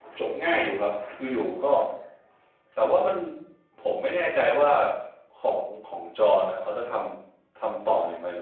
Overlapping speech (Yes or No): No